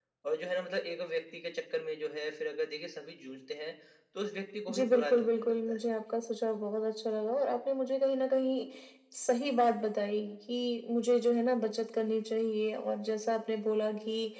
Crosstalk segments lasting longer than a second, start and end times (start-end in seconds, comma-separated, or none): 4.7-5.9